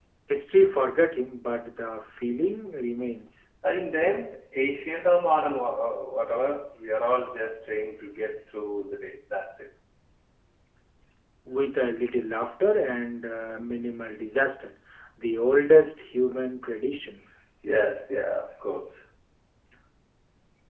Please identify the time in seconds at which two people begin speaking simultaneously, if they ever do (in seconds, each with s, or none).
none